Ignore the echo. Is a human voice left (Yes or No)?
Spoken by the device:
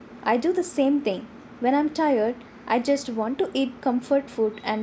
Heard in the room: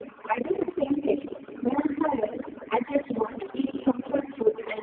No